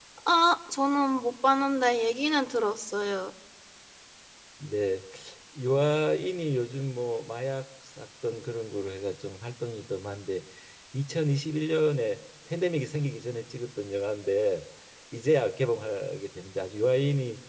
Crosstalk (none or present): none